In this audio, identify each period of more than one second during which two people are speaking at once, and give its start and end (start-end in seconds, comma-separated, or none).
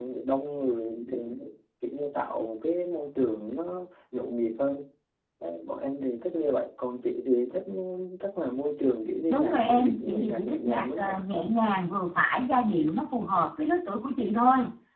9.3-11.2